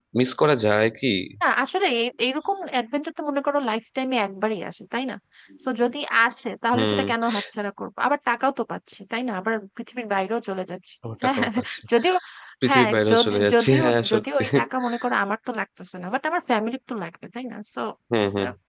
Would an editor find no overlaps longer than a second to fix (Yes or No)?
No